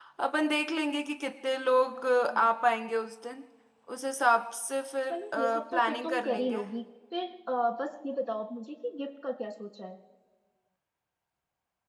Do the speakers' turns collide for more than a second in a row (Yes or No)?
Yes